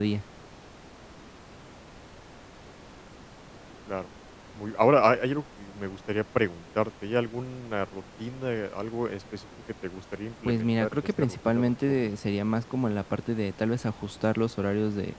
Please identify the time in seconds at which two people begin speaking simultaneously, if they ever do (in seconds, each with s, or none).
10.4 s